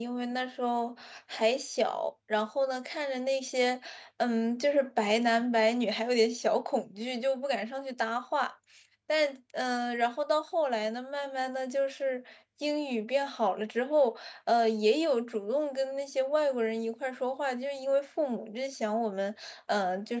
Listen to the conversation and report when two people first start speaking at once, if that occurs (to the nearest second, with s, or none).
none